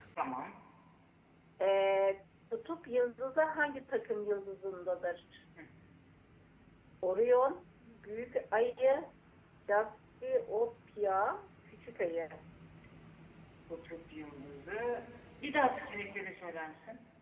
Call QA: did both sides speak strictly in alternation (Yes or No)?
Yes